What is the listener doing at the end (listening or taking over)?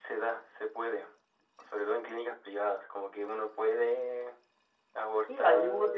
taking over